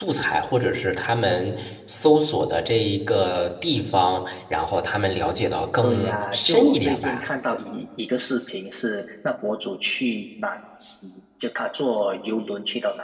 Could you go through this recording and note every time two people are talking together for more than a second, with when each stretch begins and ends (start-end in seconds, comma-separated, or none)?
5.8-7.2